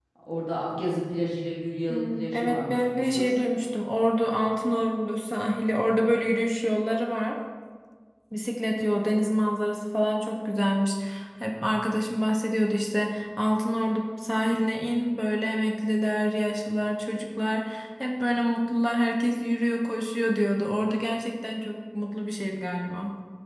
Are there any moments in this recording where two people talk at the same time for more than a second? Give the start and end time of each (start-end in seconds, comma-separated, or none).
1.9-3.4